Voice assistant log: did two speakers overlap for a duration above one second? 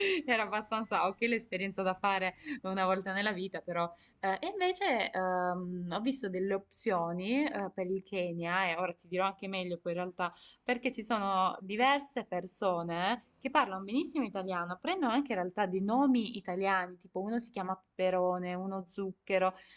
No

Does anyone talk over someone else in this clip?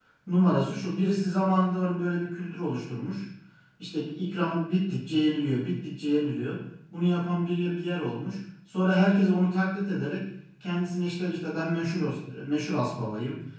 No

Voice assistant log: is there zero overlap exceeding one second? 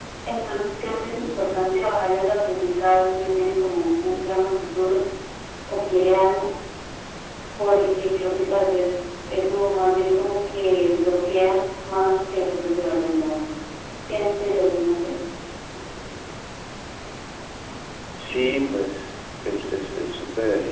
Yes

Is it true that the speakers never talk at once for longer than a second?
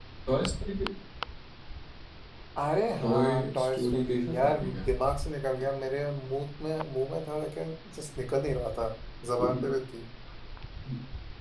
No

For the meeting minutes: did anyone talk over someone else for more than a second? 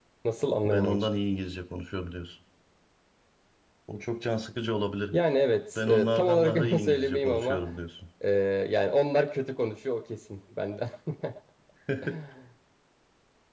Yes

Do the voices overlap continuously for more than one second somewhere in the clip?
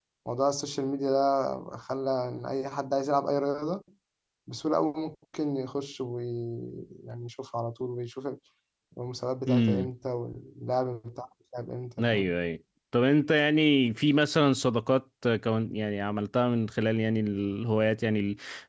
No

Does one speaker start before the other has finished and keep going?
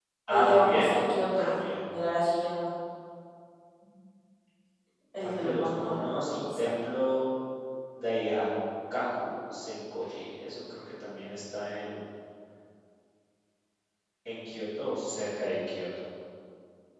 Yes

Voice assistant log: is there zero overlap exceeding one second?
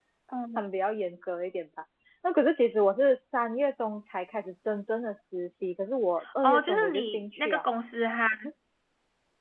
No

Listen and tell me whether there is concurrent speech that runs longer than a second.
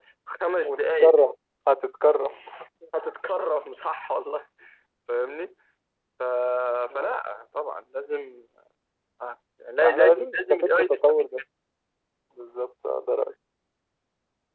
Yes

